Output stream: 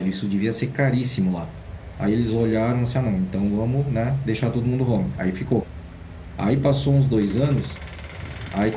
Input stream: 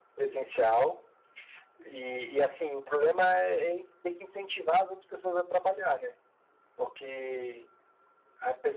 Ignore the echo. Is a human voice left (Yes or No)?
Yes